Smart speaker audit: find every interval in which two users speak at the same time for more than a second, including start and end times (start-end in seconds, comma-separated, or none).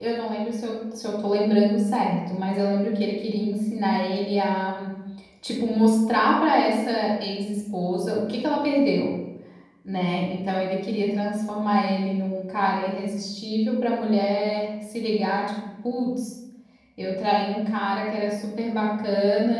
none